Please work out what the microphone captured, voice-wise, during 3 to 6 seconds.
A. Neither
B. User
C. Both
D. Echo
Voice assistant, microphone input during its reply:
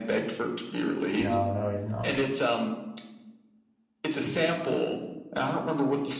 D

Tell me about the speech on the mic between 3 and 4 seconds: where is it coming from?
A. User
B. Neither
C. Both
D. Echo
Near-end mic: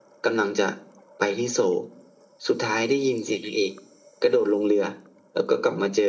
D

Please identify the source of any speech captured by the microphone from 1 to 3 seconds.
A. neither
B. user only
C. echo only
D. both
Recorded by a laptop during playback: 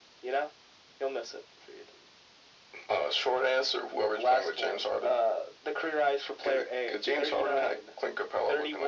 C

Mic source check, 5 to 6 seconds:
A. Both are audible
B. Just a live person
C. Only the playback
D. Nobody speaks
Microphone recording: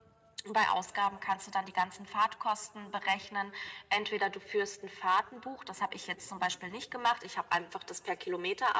C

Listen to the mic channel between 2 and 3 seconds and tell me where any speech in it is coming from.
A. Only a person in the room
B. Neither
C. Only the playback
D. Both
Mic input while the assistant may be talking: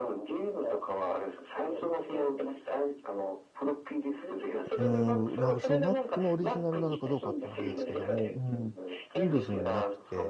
C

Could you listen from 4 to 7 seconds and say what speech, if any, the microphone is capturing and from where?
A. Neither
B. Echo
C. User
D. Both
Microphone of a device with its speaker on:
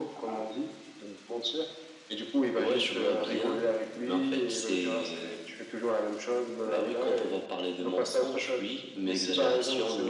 B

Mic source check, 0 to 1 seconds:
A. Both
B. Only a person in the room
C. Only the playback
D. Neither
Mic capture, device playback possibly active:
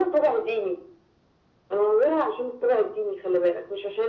C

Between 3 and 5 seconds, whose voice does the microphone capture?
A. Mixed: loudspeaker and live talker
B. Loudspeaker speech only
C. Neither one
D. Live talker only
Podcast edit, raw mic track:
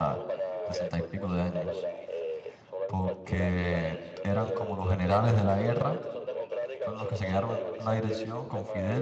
A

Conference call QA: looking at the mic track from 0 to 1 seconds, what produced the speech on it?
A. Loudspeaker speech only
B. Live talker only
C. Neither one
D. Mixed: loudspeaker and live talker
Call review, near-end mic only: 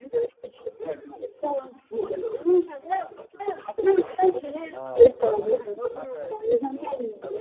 A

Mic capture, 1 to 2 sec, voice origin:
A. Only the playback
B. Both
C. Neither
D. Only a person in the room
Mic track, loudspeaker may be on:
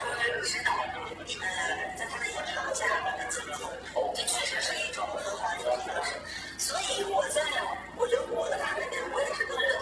A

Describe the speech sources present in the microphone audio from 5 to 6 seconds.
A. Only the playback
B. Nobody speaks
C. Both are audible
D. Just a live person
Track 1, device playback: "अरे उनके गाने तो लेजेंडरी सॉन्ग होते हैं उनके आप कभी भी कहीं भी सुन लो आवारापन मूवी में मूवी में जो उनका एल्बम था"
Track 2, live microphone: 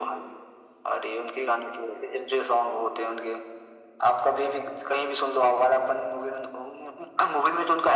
A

